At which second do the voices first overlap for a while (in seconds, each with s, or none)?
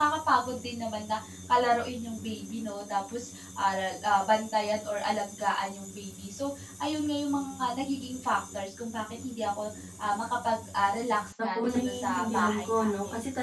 11.6 s